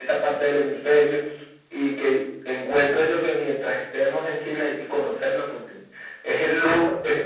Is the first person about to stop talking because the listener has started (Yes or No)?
No